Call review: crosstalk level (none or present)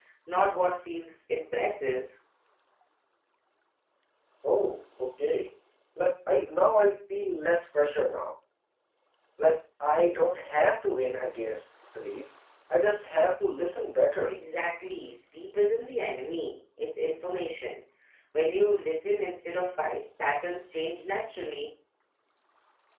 none